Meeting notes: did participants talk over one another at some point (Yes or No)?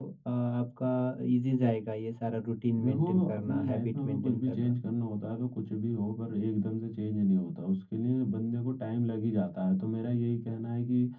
Yes